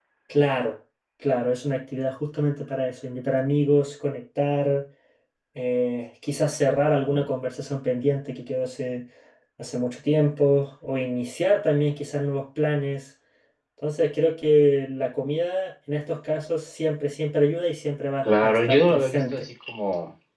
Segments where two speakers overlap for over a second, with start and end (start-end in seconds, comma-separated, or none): 18.2-19.5